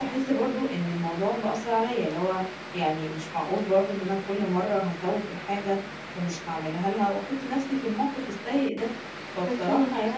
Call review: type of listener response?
listening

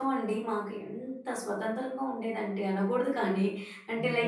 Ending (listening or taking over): listening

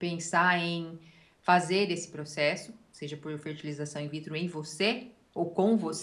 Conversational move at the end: taking over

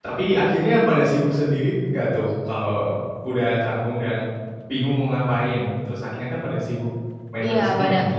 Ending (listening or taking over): taking over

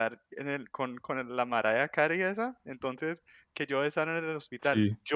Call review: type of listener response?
listening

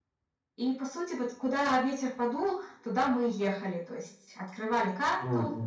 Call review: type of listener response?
listening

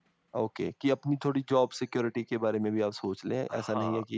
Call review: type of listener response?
taking over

